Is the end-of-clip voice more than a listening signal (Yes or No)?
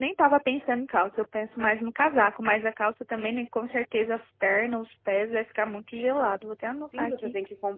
Yes